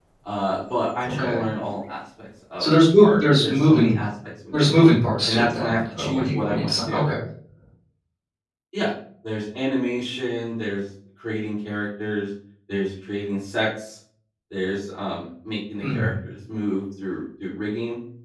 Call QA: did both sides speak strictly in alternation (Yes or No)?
No